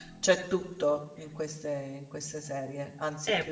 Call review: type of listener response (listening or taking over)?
taking over